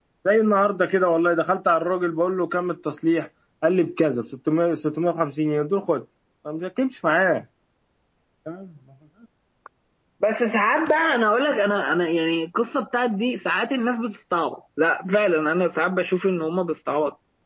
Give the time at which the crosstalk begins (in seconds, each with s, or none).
none